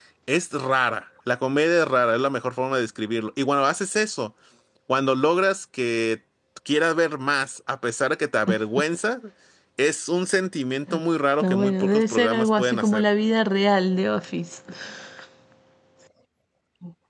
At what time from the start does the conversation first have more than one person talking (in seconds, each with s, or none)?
11.4 s